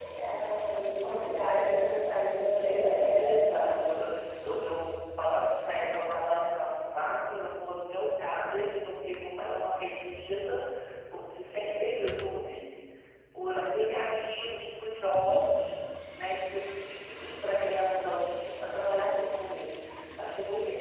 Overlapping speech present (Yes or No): Yes